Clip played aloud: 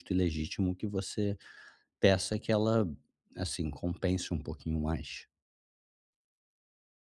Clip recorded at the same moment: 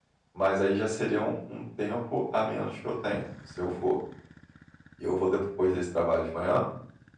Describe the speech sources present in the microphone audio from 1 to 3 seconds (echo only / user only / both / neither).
user only